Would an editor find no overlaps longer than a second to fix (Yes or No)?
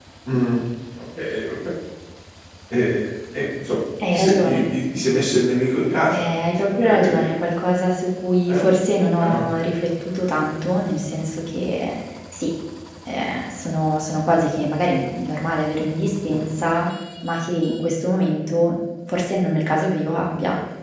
No